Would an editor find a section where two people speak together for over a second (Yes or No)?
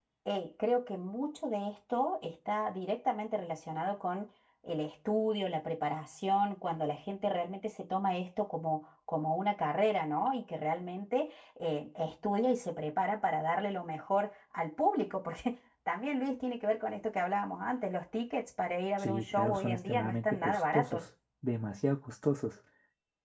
Yes